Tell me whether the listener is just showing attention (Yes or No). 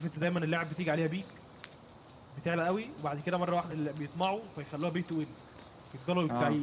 Yes